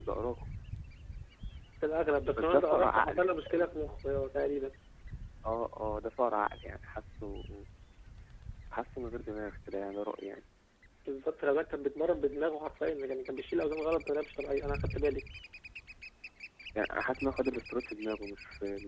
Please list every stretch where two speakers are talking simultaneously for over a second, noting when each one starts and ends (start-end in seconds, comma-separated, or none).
2.4-3.7